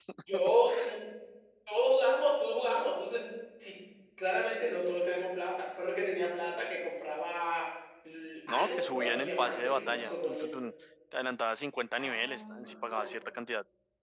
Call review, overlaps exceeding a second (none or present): present